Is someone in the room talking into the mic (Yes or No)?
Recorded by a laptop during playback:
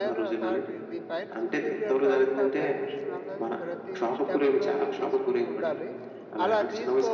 Yes